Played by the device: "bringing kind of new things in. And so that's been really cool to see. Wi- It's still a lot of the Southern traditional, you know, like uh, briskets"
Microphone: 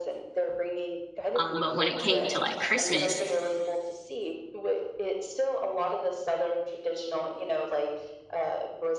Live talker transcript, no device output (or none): um, but when it came to like Christmas,